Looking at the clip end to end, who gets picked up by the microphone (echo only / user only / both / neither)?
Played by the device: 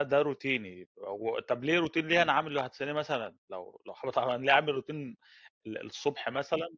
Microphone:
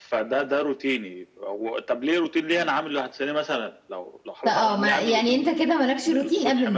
both